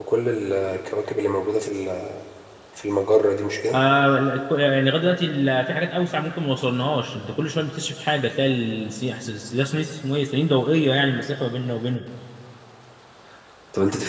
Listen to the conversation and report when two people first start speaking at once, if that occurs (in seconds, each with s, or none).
none